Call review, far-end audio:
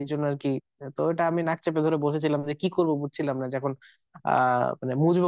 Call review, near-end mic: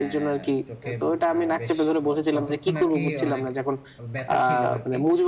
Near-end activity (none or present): present